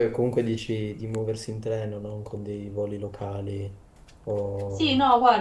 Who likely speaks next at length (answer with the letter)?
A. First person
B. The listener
B